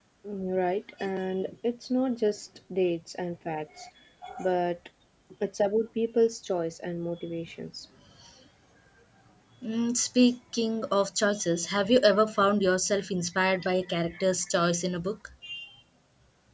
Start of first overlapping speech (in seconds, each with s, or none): none